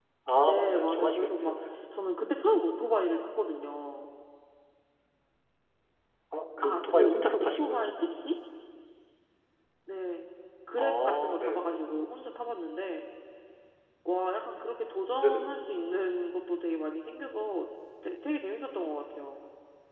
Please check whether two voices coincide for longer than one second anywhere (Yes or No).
Yes